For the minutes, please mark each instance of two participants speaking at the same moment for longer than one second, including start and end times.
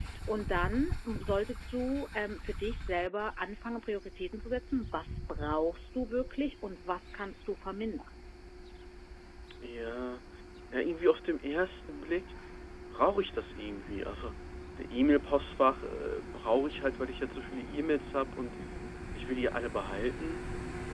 none

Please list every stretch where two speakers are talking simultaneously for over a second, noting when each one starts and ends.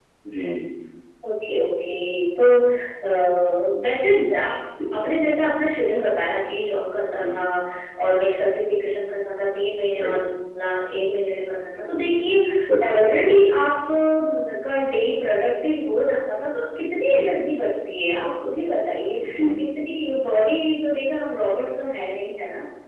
none

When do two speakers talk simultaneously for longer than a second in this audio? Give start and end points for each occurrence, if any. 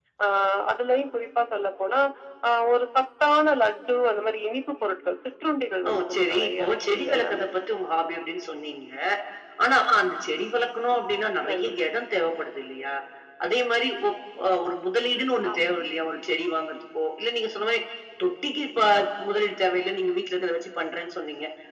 5.9-7.4

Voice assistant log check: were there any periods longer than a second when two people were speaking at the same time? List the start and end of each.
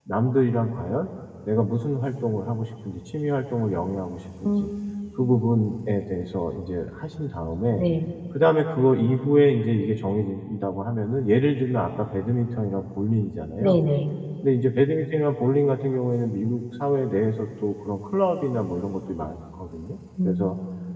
none

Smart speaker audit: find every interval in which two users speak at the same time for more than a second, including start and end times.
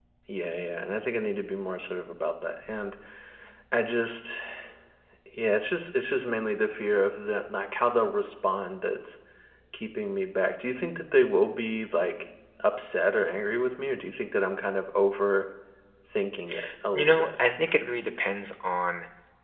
none

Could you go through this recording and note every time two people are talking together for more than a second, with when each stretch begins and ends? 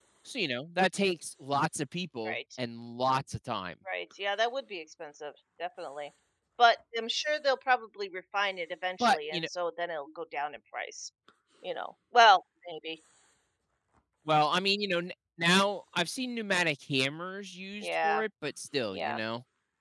none

